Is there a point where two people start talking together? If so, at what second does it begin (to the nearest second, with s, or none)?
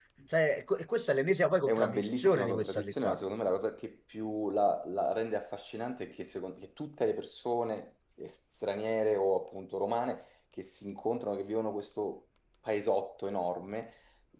2 s